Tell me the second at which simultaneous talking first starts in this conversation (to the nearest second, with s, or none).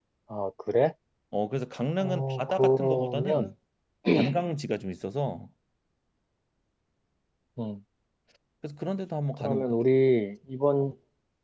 2 s